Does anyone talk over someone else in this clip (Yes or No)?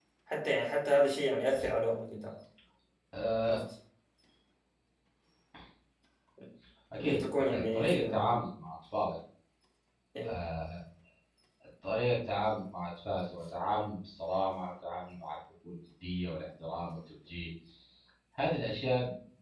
Yes